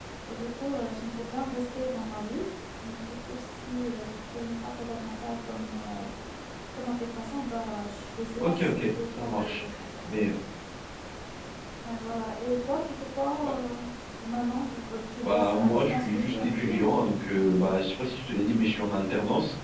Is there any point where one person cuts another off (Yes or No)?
Yes